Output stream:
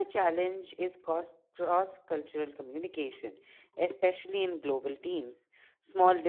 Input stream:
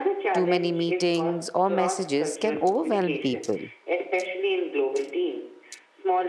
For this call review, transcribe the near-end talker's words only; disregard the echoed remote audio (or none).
Too many meetings or messages can overwhelm people.